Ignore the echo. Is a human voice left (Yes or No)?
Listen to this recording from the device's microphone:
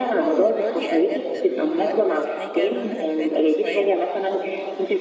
Yes